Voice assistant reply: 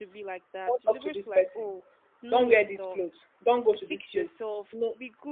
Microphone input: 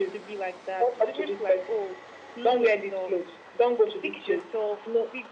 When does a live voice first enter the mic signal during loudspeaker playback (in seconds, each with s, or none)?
none